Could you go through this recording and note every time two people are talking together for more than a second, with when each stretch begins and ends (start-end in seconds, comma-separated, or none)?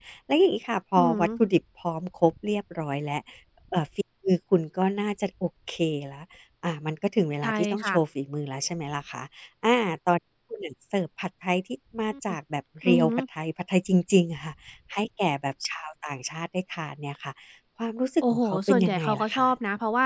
18.2-19.5